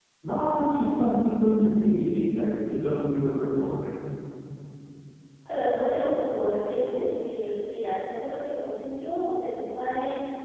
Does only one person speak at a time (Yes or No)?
Yes